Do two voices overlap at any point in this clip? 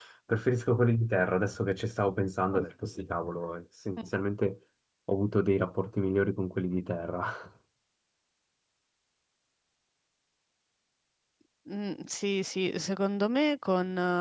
No

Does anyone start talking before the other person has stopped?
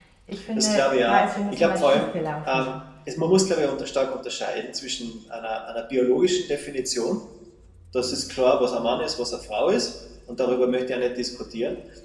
Yes, from 0.6 s

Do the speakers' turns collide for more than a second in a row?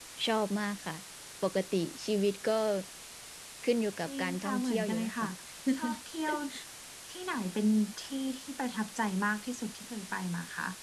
Yes, from 4.1 s

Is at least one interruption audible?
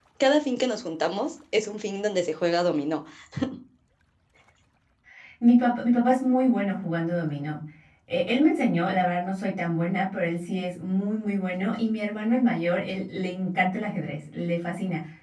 No

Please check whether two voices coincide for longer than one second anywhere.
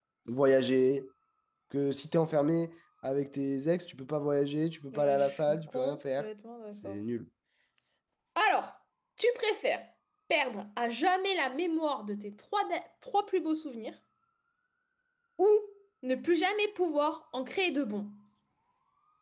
Yes, from 4.9 s

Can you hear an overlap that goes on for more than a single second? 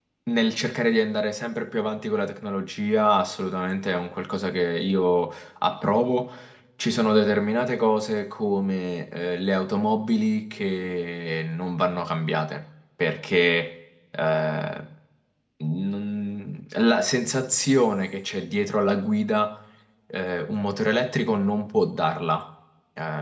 No

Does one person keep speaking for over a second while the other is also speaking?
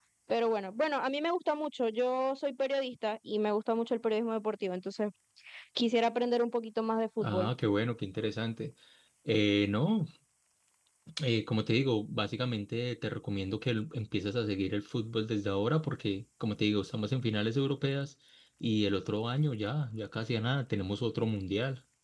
No

